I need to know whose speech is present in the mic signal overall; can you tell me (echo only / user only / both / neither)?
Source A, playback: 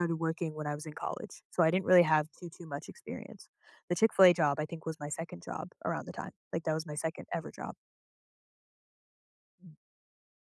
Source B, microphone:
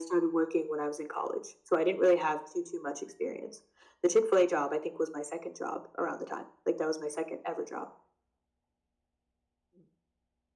echo only